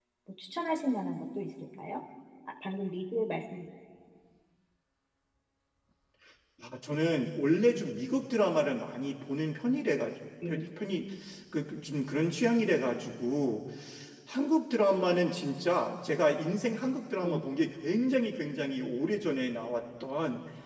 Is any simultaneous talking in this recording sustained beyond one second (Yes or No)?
No